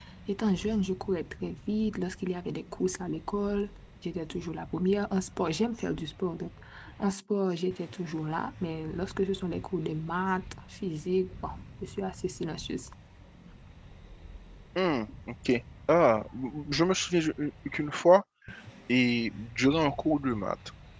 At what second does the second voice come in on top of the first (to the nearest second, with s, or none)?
none